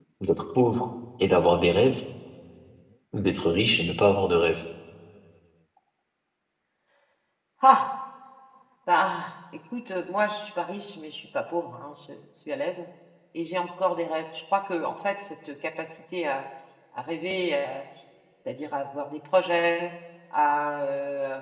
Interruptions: none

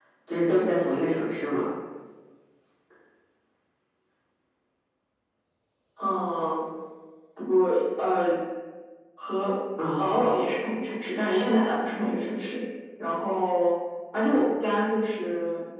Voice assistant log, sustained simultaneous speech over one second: none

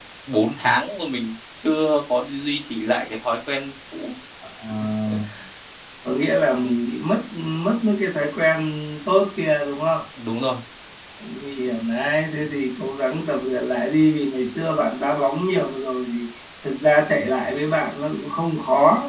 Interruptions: none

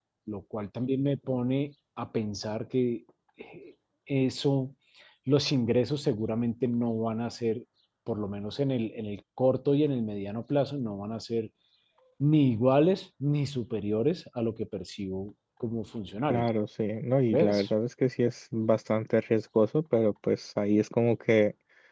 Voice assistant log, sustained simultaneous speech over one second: none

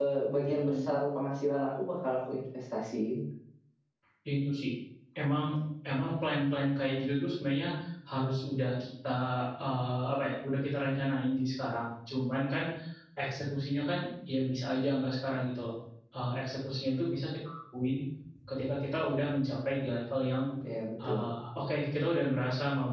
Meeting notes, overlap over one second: none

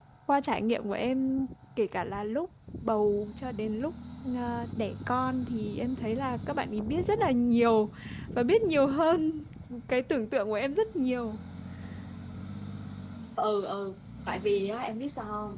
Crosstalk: none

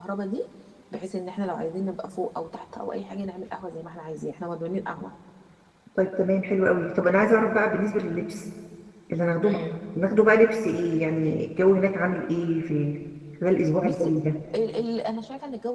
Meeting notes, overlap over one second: none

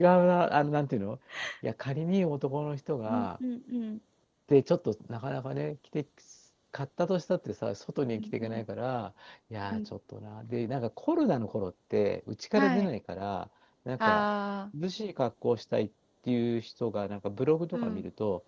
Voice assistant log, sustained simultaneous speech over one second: none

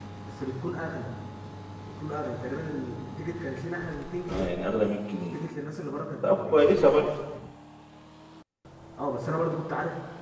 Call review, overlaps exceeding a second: none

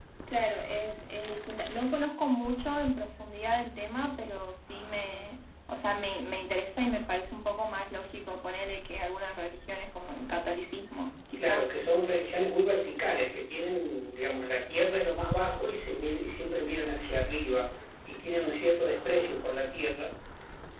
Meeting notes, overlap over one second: none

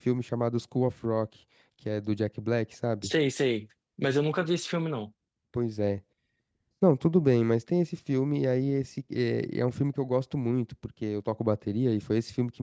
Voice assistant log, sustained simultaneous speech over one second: none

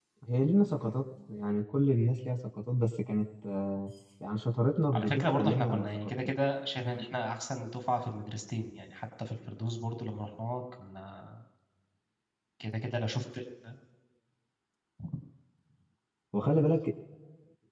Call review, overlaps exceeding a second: present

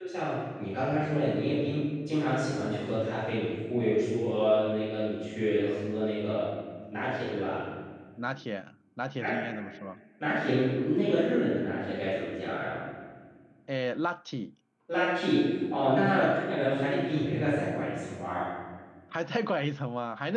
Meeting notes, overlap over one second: none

